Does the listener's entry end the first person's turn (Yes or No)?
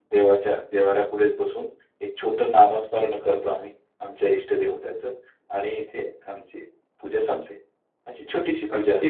No